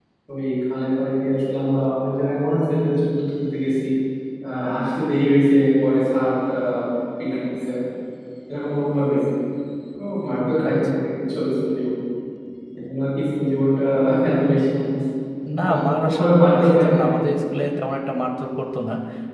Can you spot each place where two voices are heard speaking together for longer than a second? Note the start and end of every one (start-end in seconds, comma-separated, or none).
15.6-17.2